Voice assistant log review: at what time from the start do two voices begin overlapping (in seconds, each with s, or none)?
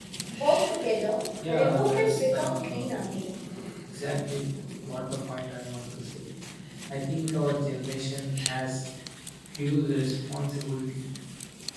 1.4 s